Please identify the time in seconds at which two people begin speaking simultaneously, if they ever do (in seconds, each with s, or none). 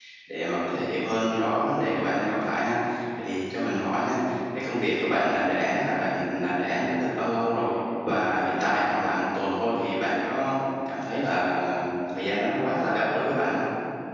none